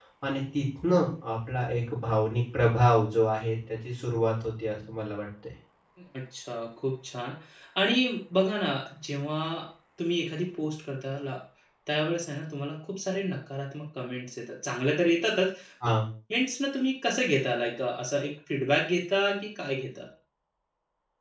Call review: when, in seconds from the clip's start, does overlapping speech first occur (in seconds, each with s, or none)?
none